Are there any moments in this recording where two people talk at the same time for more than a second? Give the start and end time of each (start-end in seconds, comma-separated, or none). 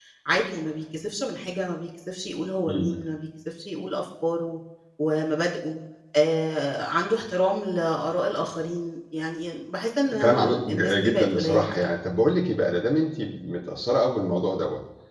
10.2-11.9